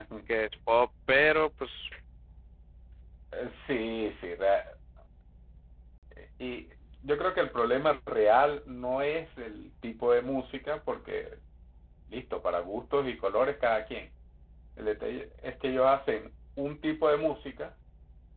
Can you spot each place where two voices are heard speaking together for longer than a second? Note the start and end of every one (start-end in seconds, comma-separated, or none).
none